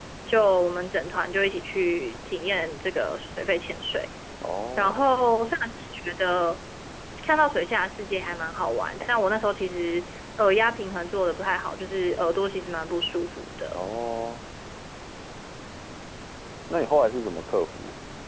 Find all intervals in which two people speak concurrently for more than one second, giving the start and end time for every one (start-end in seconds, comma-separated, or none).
none